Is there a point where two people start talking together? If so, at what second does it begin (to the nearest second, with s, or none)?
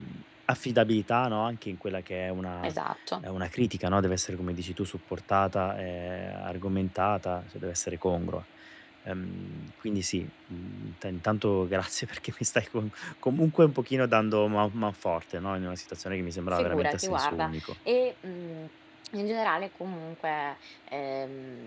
17 s